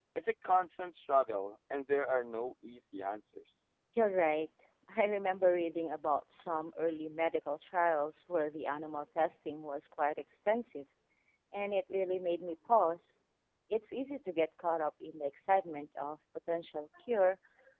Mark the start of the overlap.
none

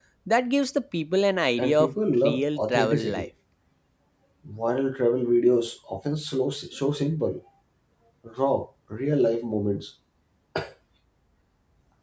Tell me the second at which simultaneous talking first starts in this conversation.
1.6 s

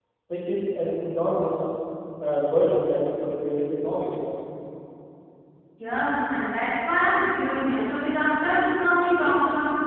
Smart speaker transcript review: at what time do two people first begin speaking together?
none

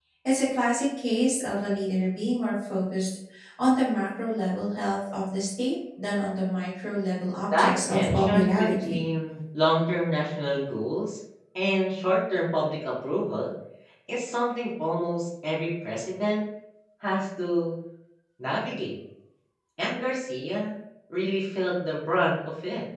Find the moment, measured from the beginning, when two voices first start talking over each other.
7.5 s

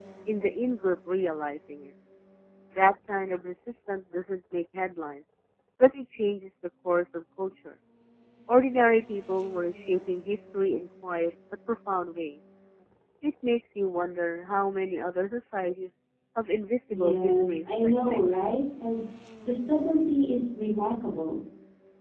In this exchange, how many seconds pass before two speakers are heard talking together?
16.9 s

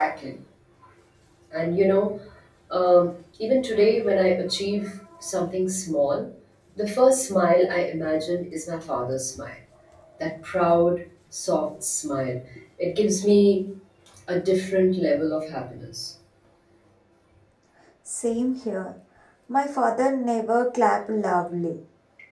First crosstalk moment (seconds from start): none

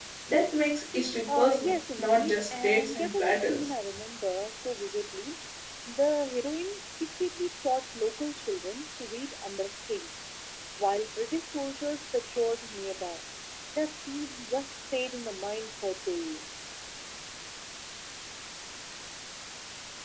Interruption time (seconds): 1.3 s

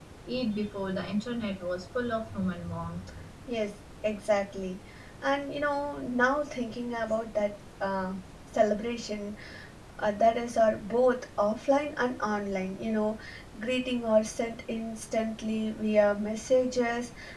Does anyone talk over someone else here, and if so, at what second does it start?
none

